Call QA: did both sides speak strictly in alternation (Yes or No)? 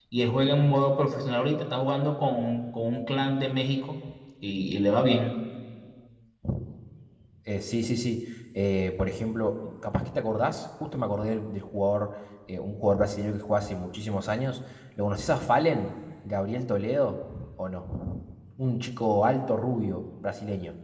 Yes